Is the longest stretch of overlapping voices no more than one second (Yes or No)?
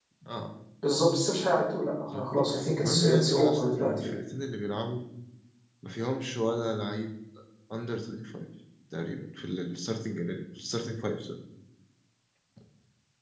No